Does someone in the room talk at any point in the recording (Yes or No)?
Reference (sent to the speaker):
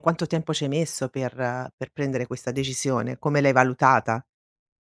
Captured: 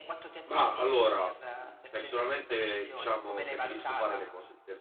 Yes